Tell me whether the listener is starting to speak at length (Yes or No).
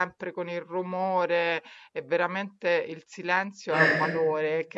No